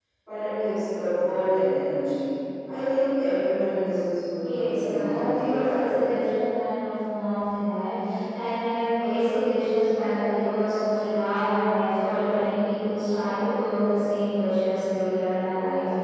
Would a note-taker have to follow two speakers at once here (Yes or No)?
Yes